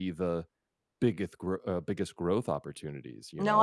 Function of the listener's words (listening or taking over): taking over